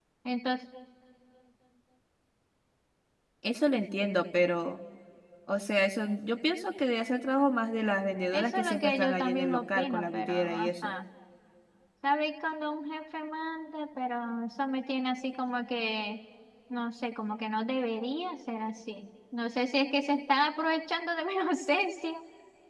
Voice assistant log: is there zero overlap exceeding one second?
No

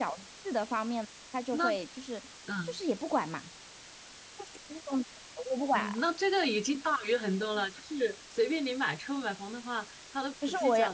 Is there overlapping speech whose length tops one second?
No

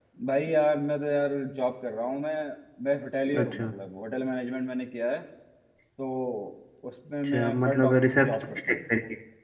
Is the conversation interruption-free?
No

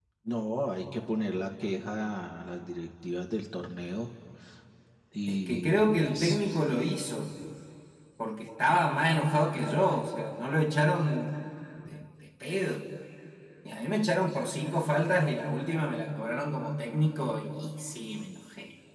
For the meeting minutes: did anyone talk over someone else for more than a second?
Yes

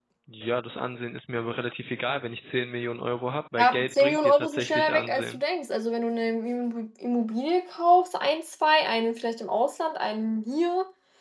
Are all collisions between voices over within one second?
No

